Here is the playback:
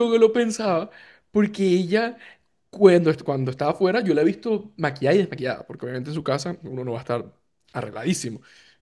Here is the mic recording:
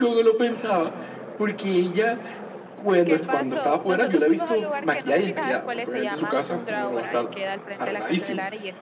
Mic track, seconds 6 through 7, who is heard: both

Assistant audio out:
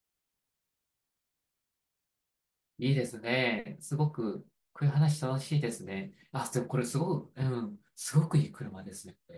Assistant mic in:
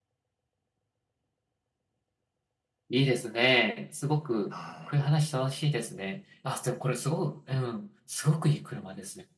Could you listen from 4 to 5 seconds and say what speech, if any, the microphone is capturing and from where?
both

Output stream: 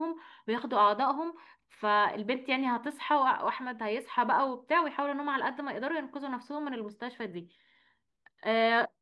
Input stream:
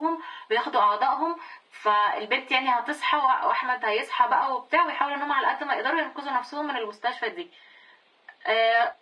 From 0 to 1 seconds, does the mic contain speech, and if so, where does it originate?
echo only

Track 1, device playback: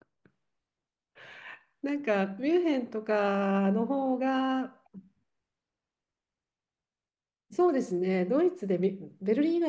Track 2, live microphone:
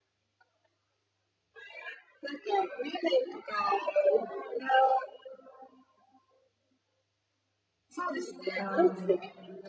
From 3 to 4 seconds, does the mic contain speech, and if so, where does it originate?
echo only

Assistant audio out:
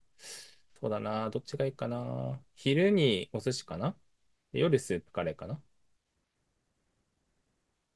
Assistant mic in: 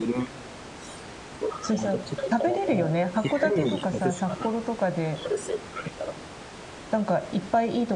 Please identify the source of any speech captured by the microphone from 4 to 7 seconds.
both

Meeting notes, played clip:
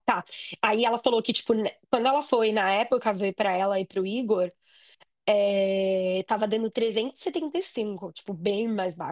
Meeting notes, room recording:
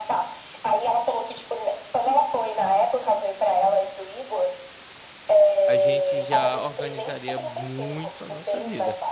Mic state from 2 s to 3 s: echo only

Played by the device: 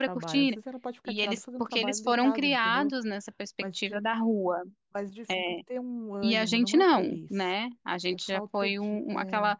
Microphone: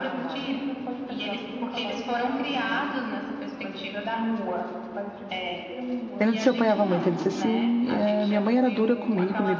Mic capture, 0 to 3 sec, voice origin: echo only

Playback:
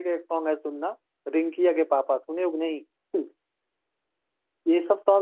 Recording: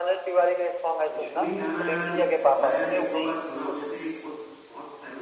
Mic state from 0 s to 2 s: both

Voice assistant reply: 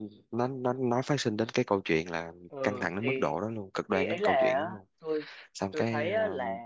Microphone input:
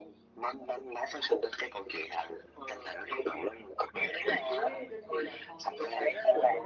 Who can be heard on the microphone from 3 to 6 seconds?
both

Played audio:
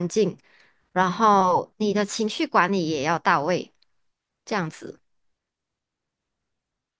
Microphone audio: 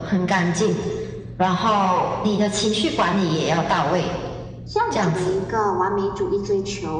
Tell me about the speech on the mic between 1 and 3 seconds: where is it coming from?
echo only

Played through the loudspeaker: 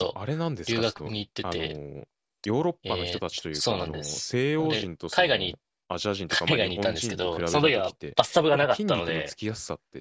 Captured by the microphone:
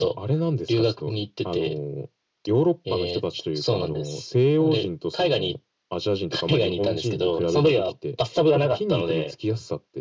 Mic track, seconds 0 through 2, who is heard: echo only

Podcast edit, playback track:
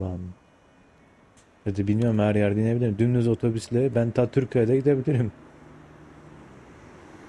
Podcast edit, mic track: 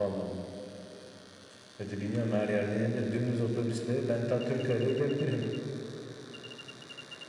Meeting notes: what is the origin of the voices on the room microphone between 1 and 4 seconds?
echo only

